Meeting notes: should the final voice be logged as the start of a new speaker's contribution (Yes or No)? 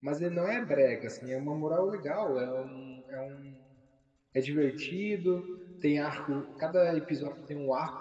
No